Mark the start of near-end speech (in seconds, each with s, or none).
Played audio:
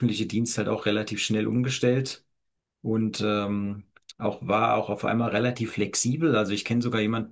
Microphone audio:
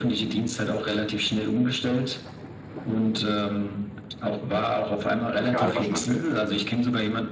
5.3 s